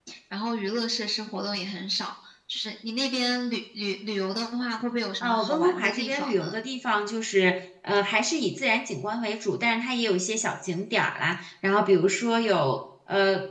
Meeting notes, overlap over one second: present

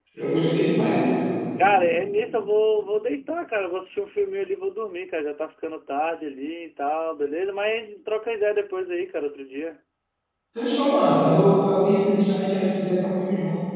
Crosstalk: none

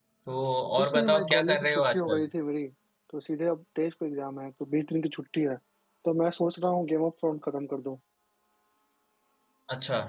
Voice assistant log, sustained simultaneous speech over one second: present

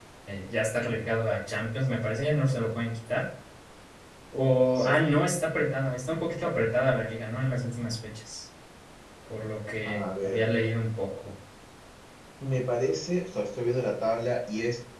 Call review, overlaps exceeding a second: none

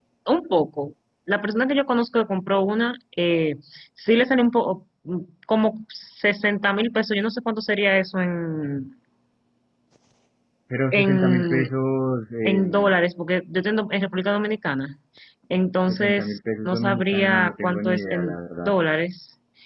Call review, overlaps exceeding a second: present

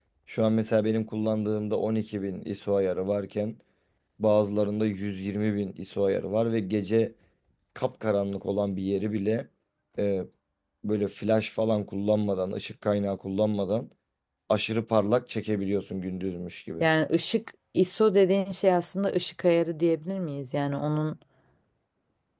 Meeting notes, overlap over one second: none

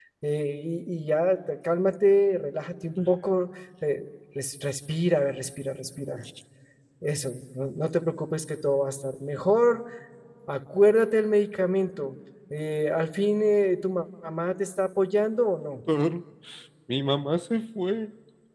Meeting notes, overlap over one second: none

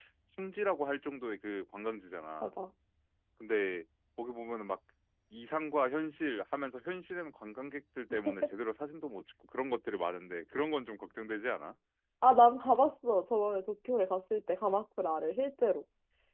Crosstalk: none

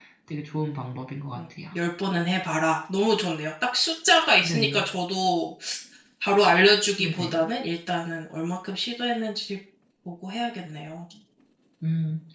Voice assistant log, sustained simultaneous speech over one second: none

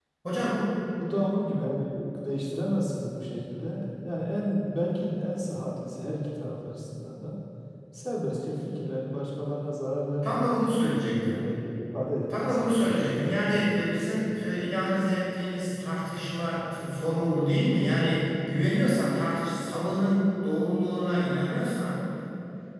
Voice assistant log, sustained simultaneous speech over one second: none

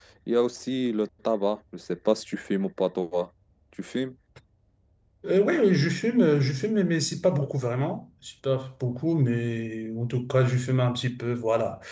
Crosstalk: none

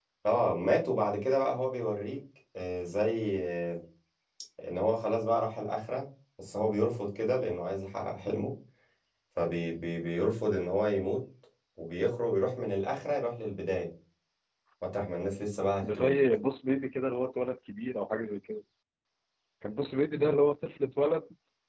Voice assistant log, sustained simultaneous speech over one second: none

